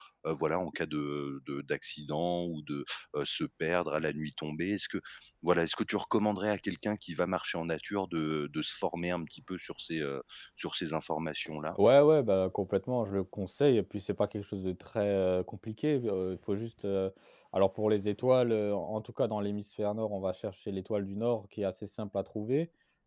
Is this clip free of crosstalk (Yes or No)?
Yes